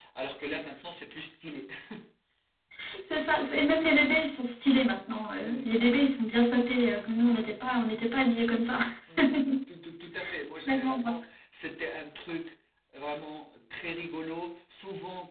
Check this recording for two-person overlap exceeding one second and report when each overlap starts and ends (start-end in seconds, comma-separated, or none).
none